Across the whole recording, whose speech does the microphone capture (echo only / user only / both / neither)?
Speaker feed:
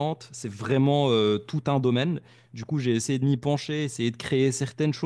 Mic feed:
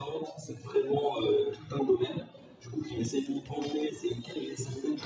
echo only